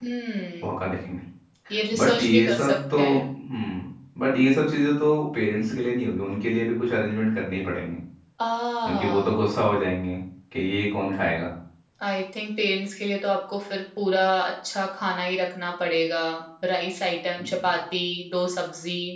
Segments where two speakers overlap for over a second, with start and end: 2.0-3.2

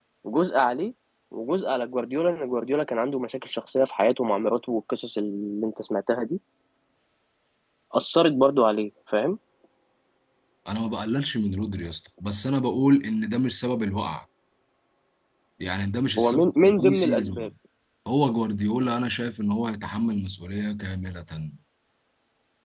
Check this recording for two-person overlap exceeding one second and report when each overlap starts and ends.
16.2-17.5

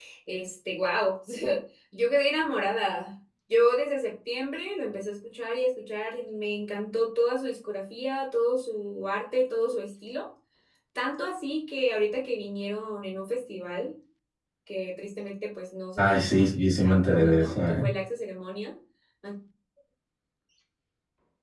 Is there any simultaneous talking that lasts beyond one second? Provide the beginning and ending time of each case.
16.0-17.9

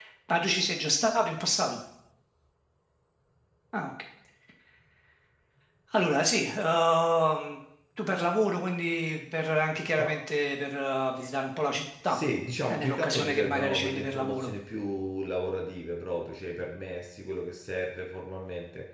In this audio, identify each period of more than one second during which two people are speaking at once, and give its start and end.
12.7-14.5

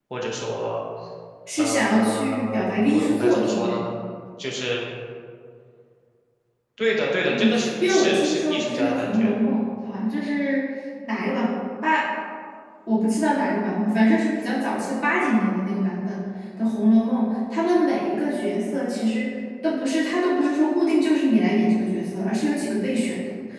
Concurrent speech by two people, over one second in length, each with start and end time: 1.6-3.9, 7.3-9.3

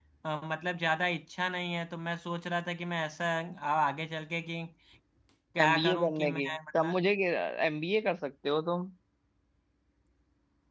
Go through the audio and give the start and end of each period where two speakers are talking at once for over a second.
5.7-7.0

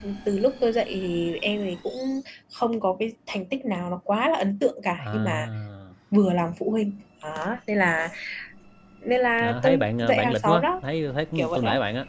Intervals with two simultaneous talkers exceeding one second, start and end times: 9.4-10.6

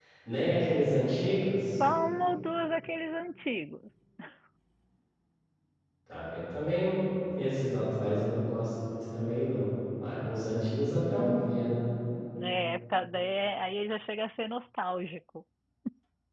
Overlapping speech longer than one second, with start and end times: none

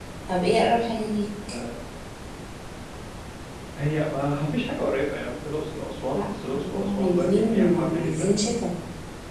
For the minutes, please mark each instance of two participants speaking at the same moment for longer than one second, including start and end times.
6.1-8.3

